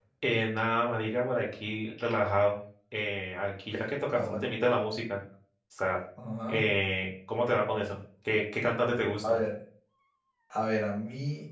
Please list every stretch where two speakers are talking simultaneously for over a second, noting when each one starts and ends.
none

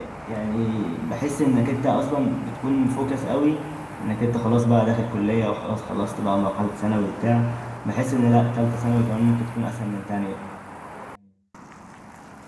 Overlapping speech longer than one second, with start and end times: none

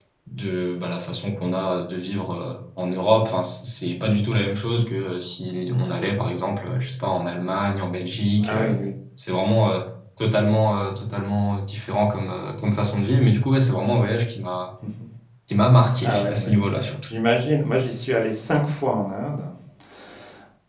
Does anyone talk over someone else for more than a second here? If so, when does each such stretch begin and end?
none

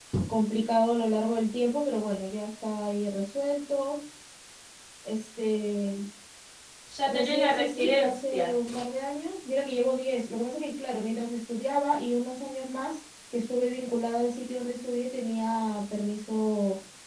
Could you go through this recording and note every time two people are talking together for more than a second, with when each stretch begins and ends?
7.0-8.5

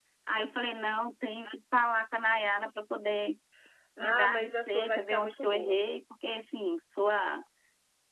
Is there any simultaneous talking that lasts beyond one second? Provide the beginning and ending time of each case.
4.0-5.8

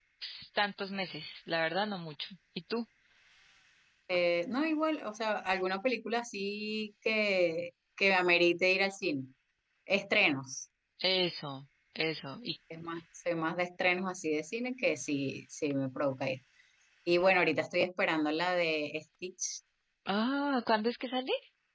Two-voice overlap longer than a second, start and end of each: none

